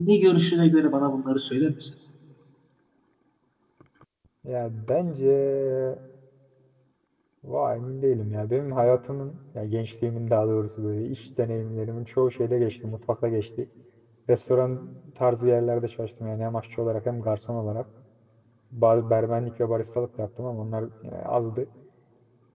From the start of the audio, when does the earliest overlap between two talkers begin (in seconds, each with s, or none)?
none